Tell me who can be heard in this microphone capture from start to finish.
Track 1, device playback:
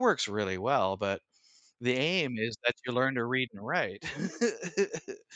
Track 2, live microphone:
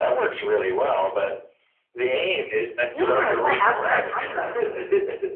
both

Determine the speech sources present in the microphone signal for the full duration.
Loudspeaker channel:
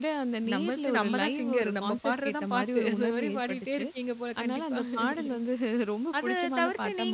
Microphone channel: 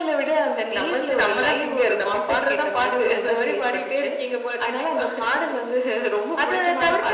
echo only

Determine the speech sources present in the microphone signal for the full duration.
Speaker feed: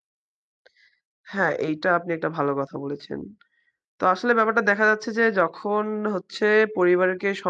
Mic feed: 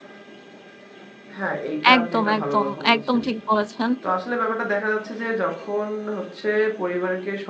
both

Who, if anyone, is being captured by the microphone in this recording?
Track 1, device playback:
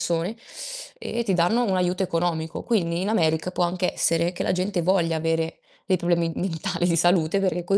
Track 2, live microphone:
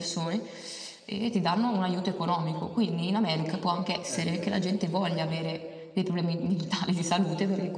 both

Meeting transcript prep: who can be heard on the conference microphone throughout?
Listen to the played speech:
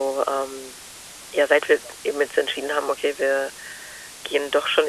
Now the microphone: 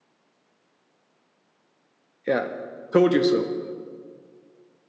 user only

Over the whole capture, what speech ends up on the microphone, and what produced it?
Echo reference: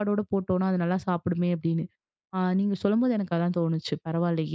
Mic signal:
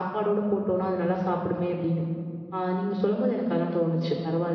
echo only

